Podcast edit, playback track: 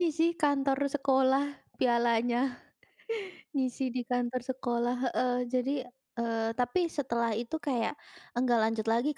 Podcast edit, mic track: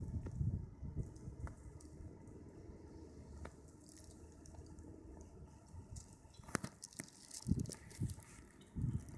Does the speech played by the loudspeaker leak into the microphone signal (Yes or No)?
No